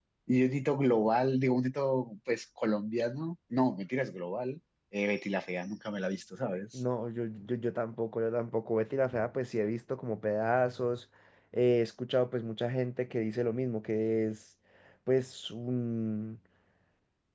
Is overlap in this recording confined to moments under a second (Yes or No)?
Yes